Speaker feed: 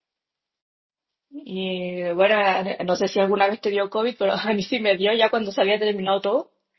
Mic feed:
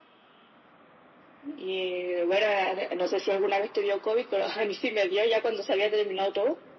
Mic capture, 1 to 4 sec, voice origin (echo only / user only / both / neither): echo only